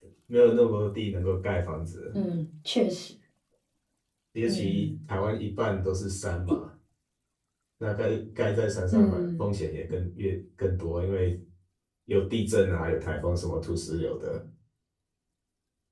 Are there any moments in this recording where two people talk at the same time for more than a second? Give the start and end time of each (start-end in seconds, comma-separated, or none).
none